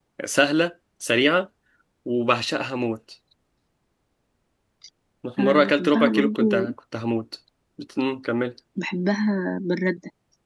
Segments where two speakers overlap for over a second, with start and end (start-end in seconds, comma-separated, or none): 5.4-6.7